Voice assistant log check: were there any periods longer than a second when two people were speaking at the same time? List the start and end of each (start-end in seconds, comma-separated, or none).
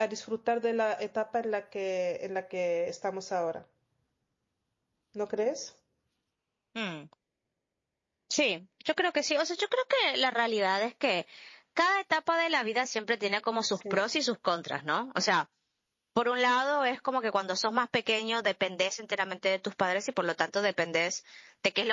none